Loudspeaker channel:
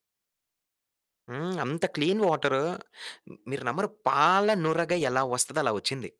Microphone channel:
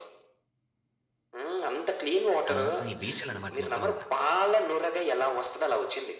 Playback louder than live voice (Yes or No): Yes